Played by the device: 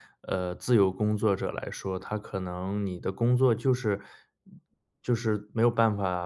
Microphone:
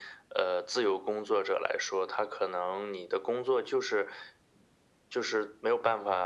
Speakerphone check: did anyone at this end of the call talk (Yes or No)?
No